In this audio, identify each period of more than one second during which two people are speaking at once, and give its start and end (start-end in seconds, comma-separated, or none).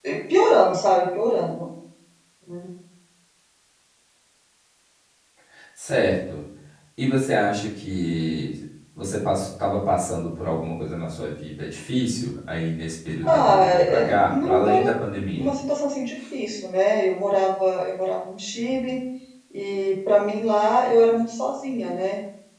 13.2-14.8